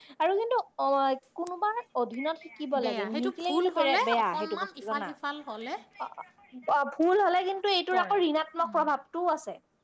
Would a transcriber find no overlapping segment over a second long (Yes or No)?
No